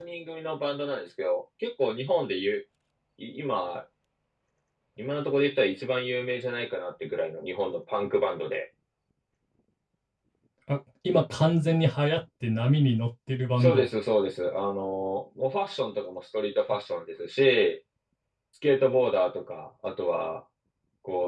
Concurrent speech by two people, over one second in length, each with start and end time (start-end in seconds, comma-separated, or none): none